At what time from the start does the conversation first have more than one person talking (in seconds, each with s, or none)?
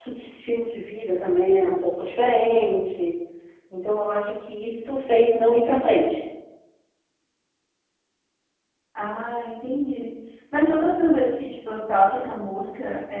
none